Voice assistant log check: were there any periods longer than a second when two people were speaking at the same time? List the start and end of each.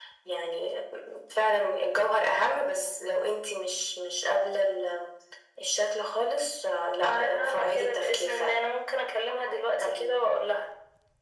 7.0-8.6

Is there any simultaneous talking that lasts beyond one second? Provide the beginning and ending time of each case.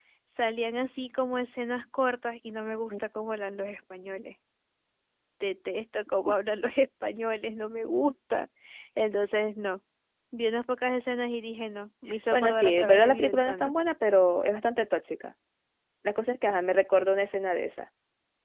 12.3-13.7

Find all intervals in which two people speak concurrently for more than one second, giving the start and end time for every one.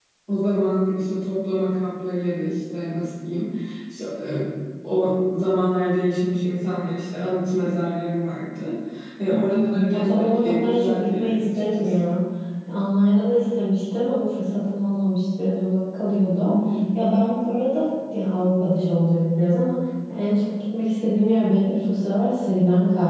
9.3-12.1

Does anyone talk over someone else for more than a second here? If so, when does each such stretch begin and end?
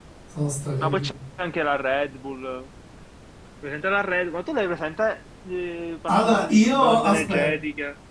6.1-7.5

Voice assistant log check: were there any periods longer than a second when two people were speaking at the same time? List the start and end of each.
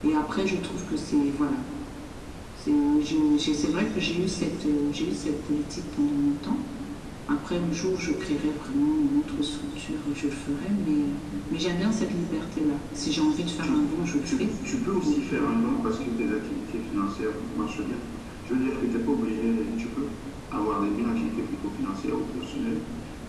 none

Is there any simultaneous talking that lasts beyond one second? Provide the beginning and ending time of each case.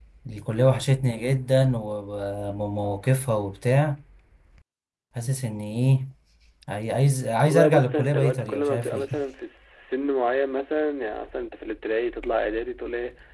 7.5-9.1

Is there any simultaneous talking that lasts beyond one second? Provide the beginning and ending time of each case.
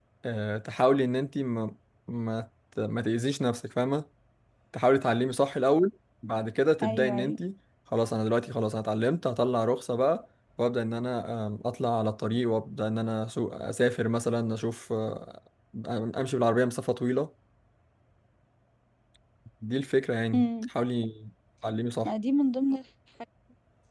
none

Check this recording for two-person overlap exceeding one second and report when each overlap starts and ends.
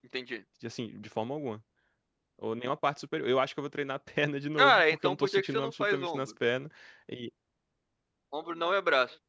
4.6-6.3

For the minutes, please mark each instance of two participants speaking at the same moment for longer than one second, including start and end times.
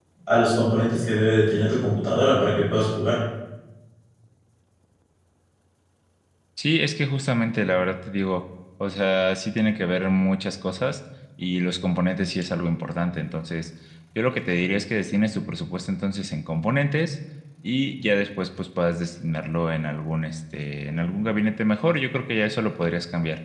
none

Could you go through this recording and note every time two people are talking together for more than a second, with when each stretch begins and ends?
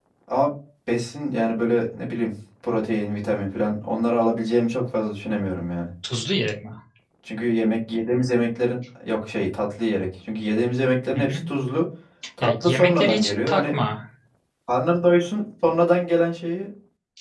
12.4-13.7

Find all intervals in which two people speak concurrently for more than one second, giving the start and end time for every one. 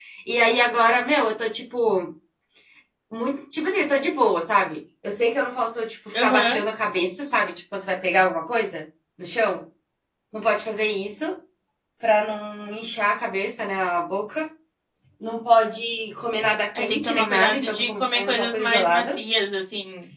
16.8-19.2

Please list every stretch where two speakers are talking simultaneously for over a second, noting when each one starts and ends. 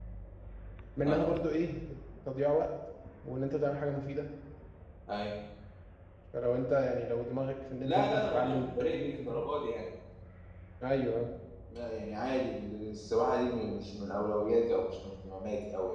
7.8-9.4

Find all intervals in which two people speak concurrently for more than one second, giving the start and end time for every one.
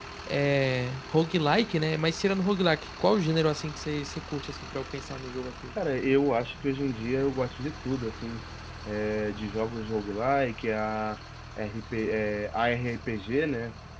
none

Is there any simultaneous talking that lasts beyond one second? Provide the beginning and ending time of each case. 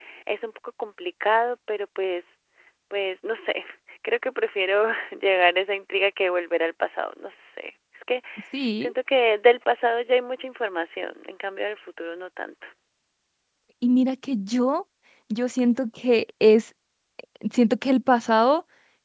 none

